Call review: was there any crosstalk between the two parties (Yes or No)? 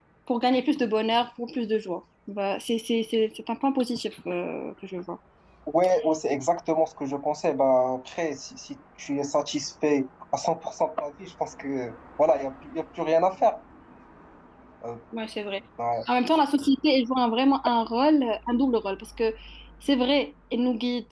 No